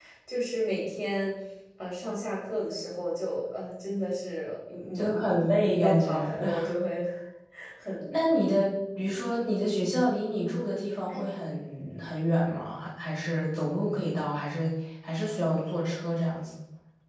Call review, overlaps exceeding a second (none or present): present